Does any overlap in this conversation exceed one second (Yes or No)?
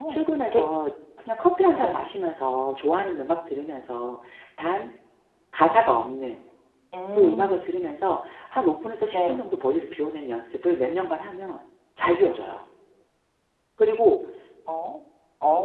No